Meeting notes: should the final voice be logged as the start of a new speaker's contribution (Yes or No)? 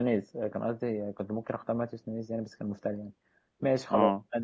No